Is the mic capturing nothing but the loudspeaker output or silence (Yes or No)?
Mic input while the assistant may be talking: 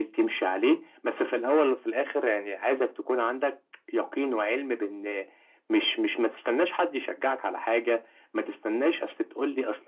Yes